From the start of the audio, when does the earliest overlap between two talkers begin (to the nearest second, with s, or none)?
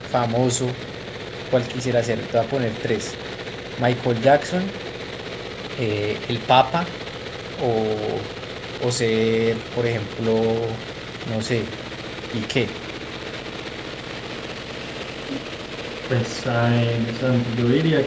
none